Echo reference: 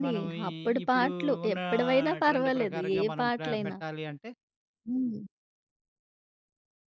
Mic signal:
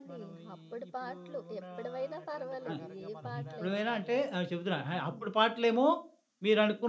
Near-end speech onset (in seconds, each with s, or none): 2.7 s